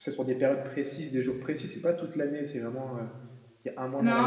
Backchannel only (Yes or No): No